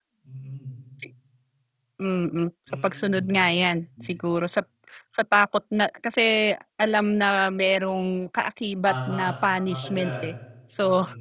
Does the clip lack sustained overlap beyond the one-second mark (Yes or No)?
No